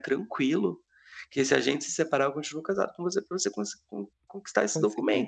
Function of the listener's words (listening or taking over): listening